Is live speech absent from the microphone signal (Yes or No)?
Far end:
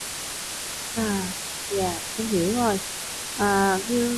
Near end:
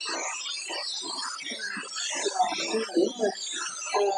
Yes